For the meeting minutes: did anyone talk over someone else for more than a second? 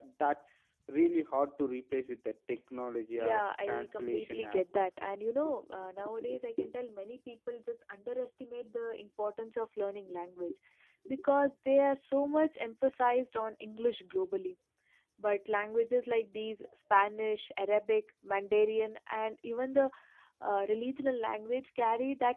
Yes, from 3.1 s

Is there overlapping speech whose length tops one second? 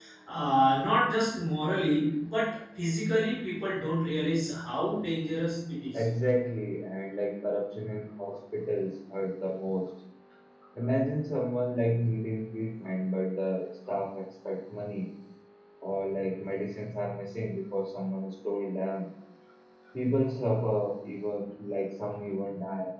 No

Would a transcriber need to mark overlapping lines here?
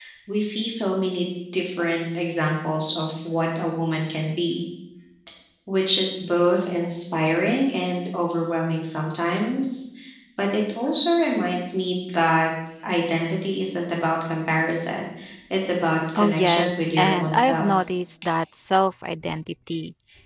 Yes, from 16.1 s

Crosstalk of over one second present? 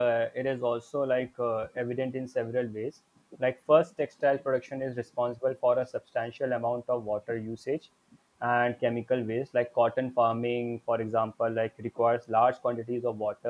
No

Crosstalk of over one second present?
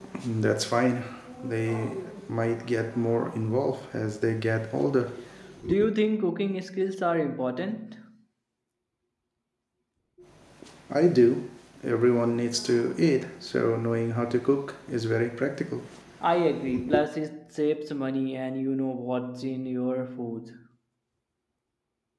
No

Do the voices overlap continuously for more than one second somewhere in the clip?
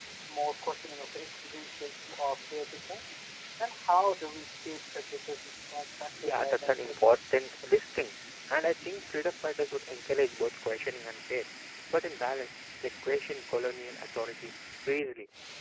Yes, from 6.2 s

